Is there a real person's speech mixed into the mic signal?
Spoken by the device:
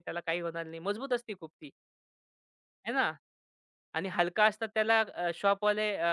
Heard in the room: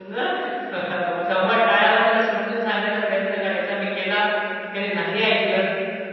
Yes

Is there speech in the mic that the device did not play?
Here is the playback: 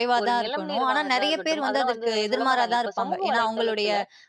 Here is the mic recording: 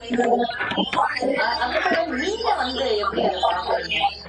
Yes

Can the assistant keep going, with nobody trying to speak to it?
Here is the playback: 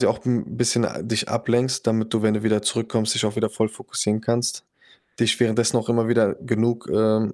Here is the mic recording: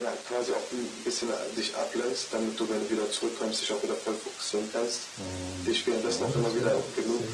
No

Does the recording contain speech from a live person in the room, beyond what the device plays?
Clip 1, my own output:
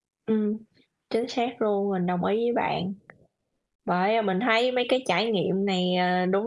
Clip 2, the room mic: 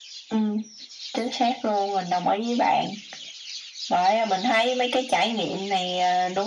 No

